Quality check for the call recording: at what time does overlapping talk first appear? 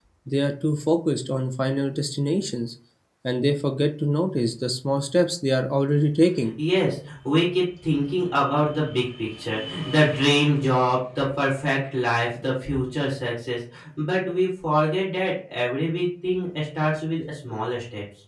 none

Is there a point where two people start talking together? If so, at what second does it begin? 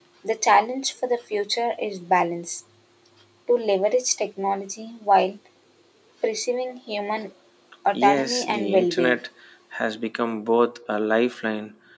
7.9 s

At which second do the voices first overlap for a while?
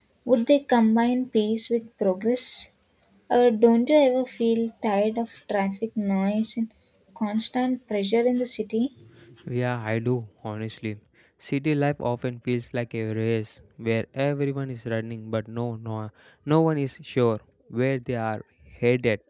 none

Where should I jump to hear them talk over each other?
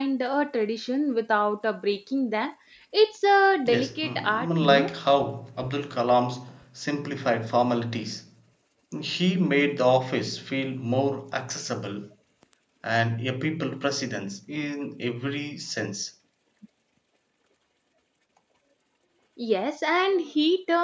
3.7 s

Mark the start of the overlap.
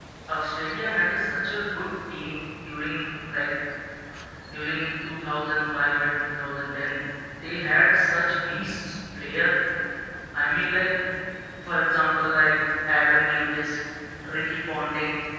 none

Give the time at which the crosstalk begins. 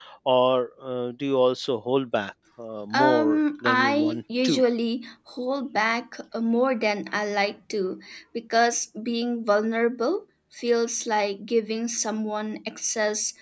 2.9 s

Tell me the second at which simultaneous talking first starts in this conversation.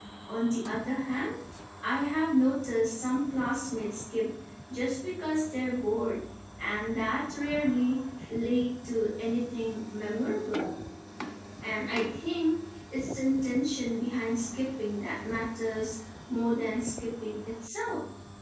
none

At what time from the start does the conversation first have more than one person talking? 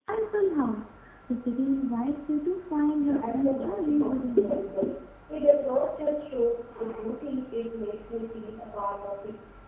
3.0 s

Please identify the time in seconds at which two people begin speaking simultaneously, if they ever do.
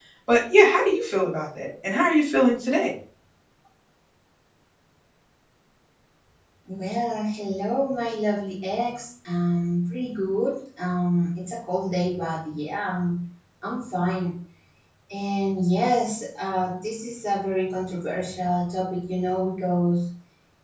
none

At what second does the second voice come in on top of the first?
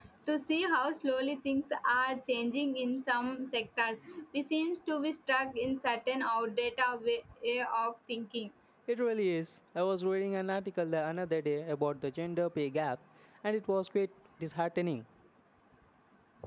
none

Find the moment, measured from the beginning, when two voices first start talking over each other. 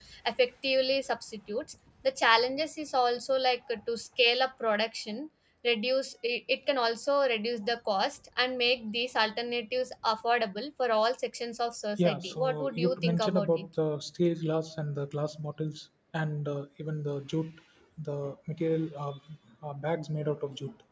12.0 s

